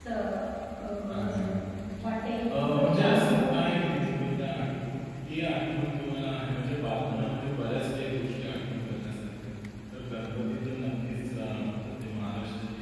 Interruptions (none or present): present